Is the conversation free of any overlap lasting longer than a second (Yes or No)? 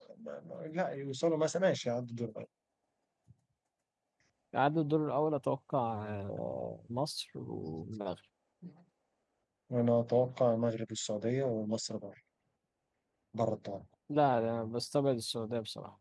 Yes